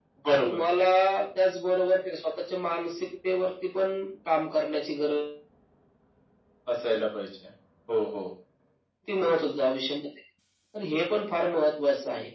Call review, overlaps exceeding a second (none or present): none